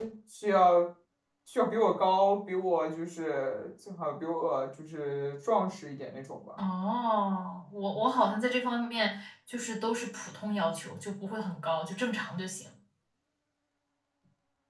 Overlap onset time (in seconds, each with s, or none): none